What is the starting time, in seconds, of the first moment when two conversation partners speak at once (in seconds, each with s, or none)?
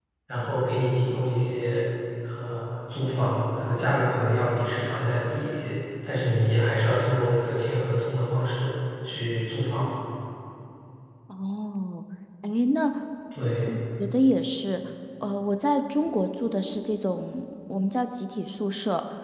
none